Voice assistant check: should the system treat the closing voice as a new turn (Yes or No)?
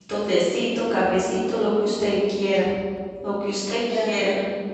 Yes